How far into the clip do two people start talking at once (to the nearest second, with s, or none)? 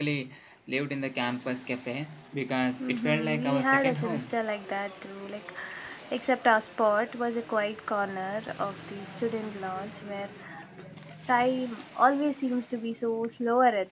3 s